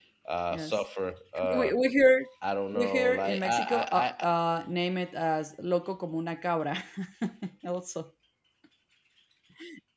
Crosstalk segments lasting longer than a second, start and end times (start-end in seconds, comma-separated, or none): 2.7-4.3